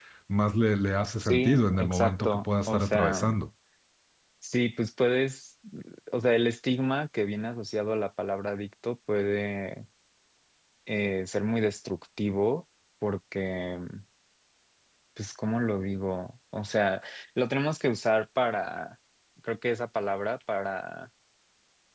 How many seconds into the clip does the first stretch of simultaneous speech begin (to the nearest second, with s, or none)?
1 s